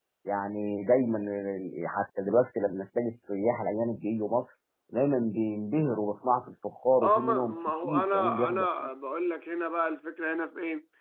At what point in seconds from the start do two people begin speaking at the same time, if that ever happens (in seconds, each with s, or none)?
7.0 s